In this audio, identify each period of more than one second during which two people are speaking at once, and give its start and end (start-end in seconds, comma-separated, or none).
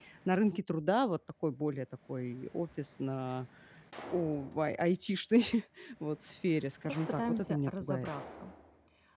6.8-8.1